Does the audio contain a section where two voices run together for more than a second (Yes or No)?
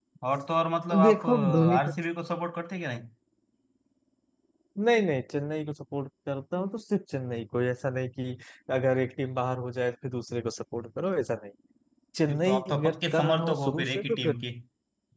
Yes